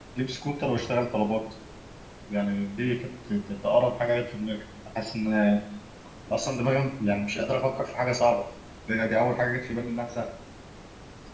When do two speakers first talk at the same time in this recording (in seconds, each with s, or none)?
none